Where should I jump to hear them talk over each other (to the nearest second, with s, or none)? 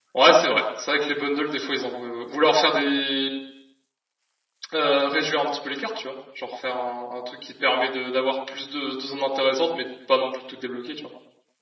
none